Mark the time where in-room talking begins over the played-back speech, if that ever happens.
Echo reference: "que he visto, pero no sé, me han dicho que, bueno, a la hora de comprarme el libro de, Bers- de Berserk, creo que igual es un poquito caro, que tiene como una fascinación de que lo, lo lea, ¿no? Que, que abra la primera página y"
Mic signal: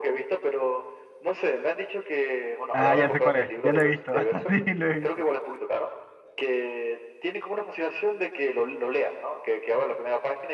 3 s

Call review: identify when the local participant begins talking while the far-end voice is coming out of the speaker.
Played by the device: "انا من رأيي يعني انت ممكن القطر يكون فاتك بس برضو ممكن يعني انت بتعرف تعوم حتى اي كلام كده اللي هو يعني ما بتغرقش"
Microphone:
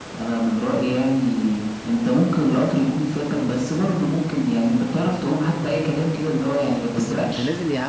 7 s

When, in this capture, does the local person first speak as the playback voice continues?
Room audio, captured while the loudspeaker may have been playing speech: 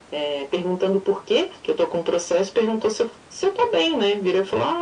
none

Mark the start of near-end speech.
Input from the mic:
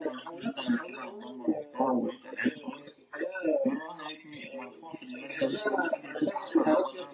none

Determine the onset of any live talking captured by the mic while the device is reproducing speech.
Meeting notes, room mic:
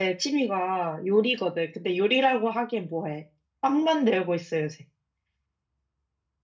none

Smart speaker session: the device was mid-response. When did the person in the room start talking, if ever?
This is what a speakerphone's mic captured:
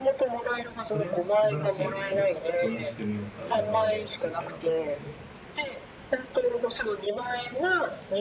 1 s

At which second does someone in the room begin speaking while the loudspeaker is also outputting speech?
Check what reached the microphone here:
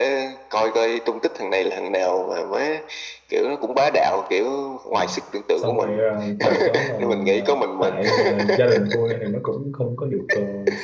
5 s

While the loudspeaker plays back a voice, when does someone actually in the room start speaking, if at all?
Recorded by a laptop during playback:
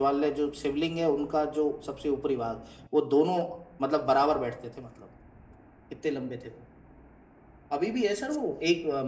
none

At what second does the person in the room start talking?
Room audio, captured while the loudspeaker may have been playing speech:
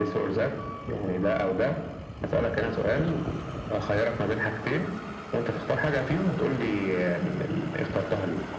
none

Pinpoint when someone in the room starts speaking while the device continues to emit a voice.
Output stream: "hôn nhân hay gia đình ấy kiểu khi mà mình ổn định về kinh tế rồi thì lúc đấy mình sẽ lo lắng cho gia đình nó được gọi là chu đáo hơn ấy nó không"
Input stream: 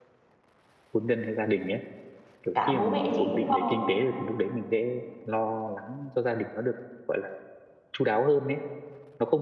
3 s

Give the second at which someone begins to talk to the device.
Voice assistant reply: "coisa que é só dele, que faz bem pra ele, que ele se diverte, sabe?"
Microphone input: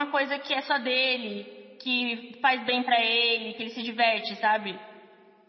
none

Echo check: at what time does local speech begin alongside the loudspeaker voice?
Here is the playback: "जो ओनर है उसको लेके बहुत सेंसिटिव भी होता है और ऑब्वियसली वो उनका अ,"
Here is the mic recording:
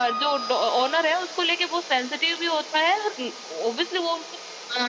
none

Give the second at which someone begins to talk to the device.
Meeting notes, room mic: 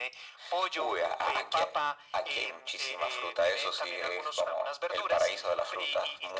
none

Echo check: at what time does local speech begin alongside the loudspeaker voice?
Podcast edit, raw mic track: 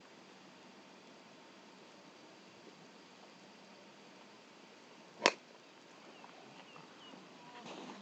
none

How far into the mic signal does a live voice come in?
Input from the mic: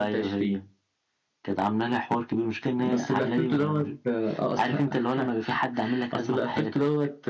none

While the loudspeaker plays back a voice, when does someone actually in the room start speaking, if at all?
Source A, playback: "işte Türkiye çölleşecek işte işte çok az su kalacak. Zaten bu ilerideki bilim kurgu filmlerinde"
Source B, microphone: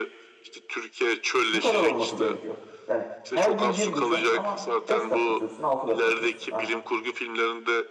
2 s

